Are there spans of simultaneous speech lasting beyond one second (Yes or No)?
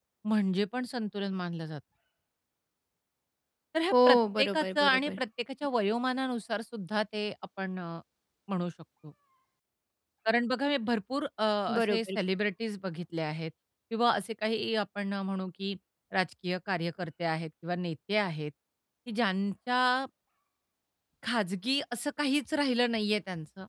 Yes